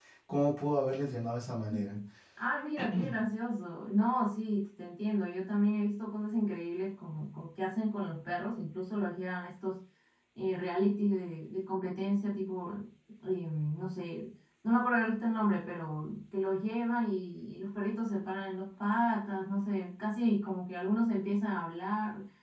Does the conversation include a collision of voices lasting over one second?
No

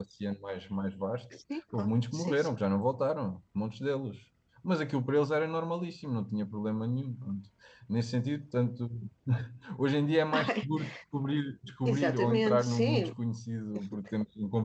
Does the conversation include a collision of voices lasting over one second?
Yes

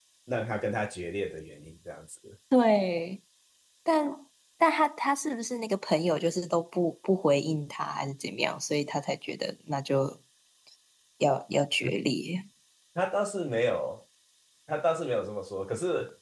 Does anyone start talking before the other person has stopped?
No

